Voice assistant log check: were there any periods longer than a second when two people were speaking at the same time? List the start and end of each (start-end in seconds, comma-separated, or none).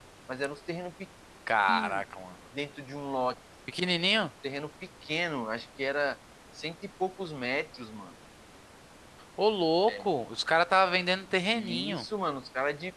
none